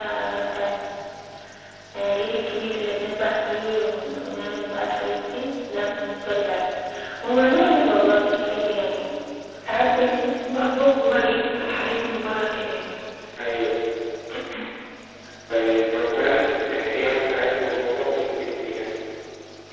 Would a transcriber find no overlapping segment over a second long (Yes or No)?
Yes